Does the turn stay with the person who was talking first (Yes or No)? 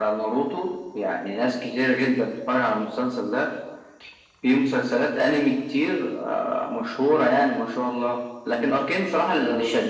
Yes